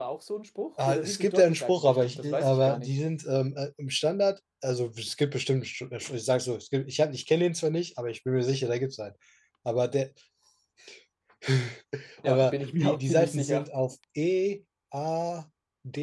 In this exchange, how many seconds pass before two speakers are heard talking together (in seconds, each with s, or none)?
0.9 s